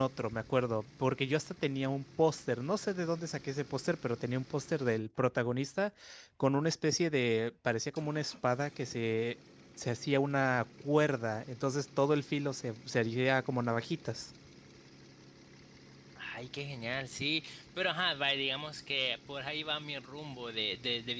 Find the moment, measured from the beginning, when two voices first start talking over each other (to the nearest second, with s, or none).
none